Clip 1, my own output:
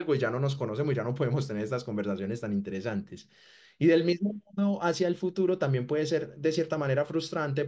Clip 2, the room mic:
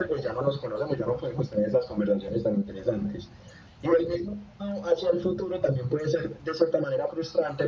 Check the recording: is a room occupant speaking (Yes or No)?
No